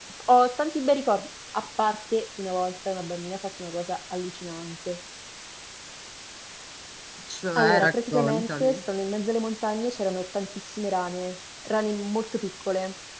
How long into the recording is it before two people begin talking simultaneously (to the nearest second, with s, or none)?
8 s